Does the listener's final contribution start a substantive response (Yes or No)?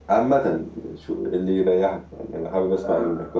Yes